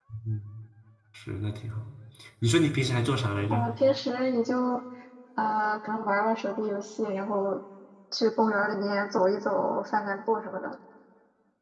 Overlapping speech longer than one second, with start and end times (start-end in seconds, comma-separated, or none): none